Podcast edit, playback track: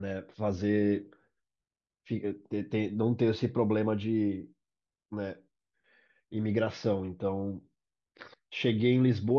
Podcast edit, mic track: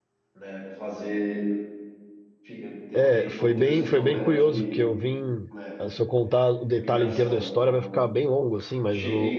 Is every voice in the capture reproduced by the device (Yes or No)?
No